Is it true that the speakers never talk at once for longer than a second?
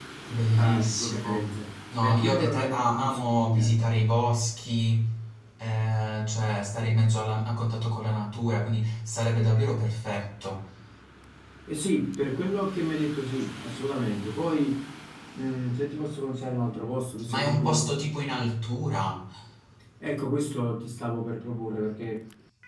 No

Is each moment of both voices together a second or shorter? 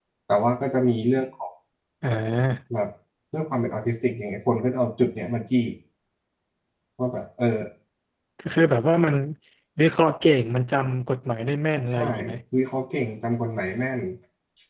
Yes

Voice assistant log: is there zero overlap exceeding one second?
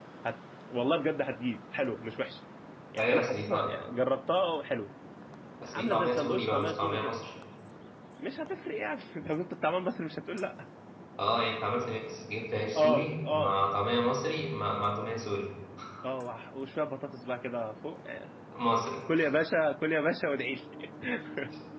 No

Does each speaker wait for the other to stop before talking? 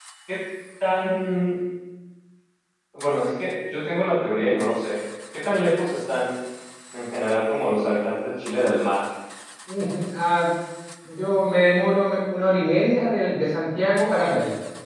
Yes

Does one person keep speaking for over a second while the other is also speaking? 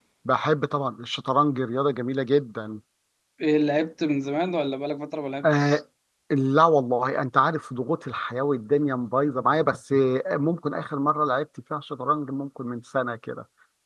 No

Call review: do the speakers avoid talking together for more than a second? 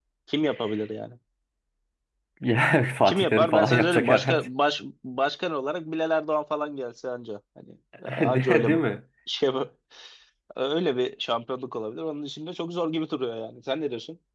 No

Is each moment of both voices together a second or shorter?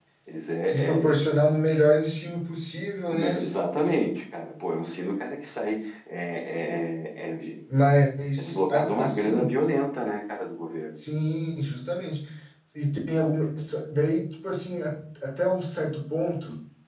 No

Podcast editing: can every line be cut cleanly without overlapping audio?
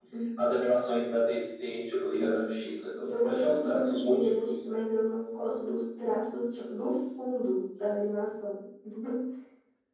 No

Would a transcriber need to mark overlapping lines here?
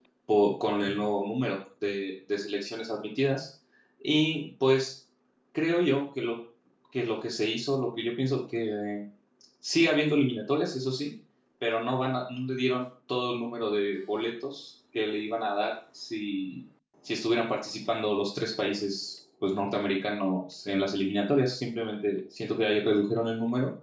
No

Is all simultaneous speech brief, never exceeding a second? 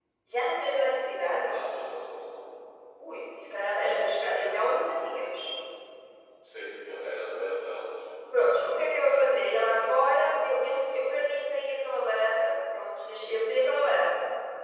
Yes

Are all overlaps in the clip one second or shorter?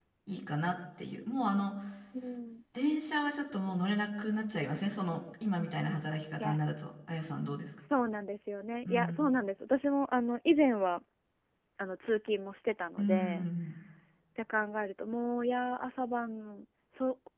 Yes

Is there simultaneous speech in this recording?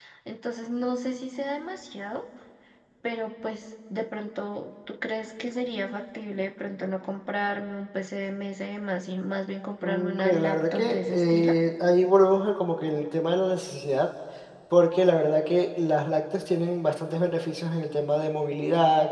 Yes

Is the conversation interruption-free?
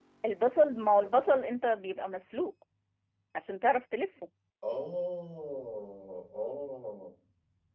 Yes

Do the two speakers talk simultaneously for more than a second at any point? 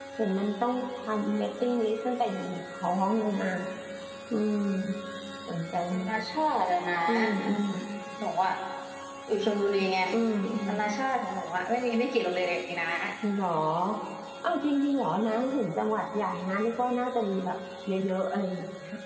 No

